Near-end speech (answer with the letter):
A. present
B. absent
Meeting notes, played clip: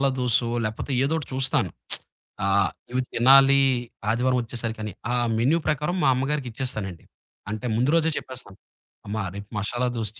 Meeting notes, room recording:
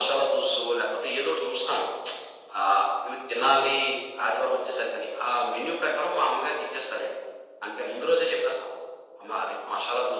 B